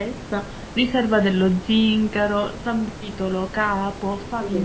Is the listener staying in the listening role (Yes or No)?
No